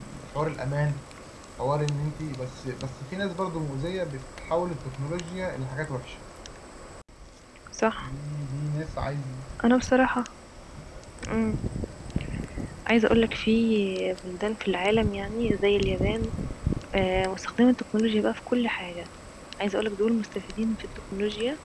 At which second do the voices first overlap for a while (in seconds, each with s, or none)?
none